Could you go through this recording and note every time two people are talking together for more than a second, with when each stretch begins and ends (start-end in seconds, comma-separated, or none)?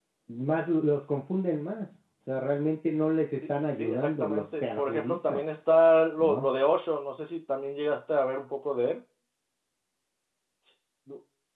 3.7-5.4